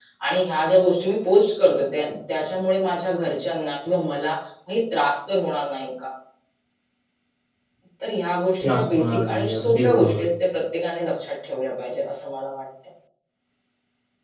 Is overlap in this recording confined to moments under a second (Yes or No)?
No